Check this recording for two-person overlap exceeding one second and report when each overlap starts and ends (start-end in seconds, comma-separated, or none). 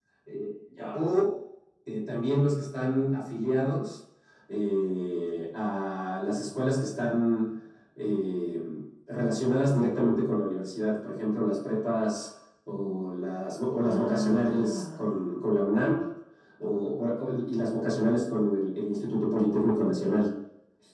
13.8-15.2